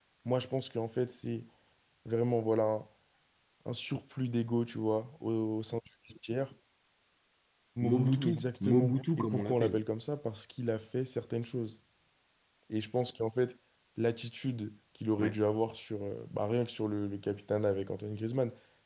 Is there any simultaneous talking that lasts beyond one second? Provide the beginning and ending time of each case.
7.8-9.8

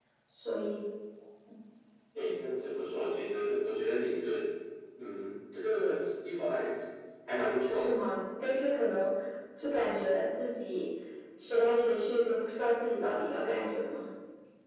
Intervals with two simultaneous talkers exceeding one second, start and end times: none

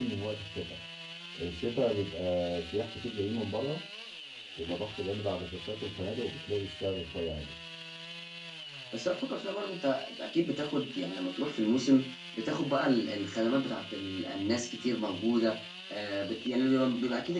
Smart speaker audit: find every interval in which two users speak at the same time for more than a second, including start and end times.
none

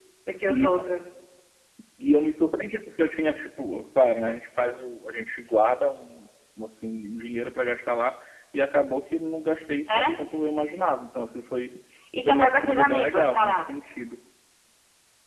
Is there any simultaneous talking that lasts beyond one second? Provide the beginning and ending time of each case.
12.2-13.6

